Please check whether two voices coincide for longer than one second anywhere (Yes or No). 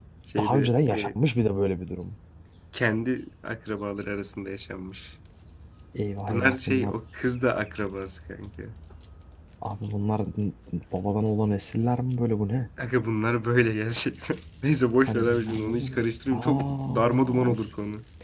Yes